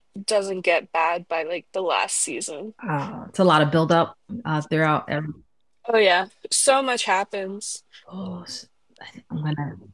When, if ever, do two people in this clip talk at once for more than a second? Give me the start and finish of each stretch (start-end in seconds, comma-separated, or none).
none